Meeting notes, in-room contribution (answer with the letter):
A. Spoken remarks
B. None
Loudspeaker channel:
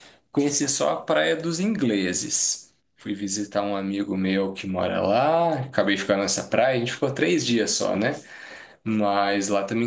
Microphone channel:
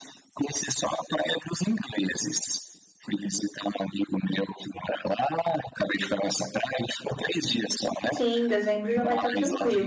A